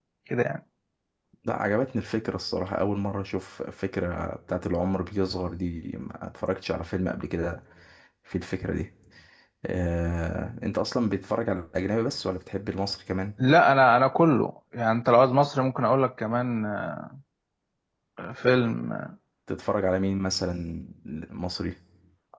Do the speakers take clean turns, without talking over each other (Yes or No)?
Yes